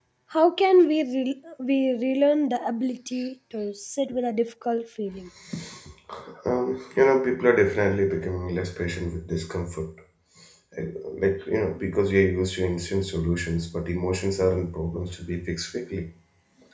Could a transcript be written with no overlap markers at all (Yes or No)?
Yes